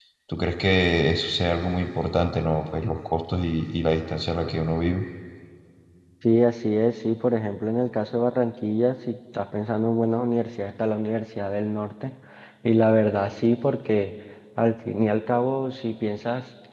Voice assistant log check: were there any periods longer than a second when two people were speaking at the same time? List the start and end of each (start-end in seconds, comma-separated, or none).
none